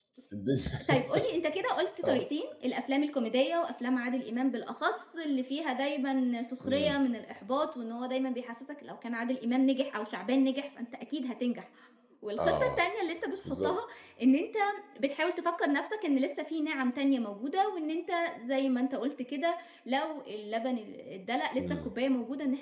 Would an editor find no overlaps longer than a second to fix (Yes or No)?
Yes